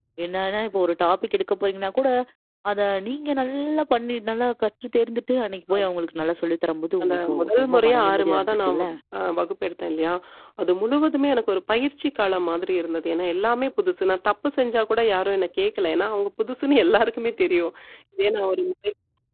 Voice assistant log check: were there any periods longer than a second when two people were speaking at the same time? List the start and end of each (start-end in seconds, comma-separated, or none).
7.0-8.8